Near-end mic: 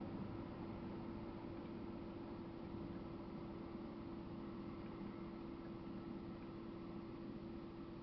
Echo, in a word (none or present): none